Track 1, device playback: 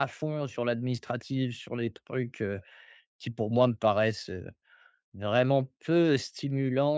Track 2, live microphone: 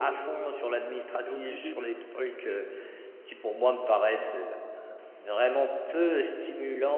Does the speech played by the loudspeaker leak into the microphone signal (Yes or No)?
Yes